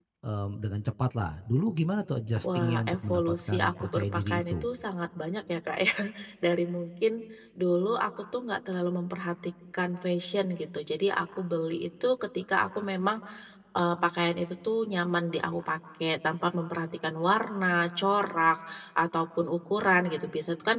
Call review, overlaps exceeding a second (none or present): present